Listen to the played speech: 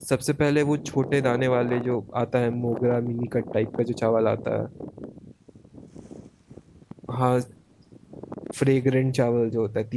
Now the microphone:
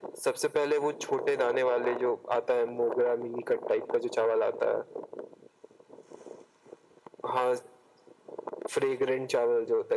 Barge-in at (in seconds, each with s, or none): none